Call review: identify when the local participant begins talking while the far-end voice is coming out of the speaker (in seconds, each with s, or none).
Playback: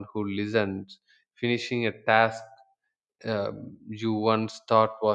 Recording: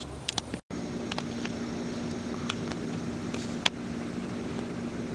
none